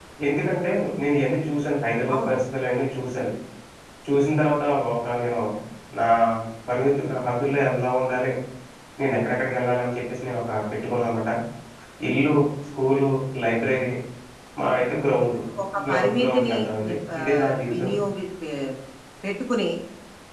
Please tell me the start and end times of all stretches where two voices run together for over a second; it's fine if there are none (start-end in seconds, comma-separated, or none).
15.9-17.9